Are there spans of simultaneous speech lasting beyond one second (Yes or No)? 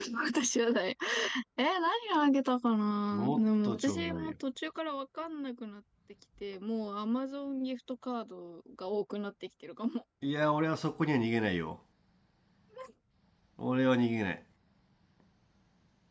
Yes